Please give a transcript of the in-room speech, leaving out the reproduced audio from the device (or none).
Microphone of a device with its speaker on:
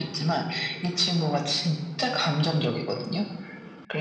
none